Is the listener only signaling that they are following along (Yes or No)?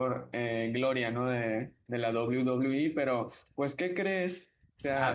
Yes